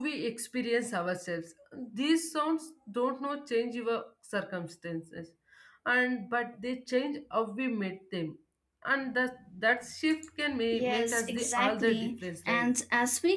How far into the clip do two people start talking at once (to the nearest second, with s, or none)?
11 s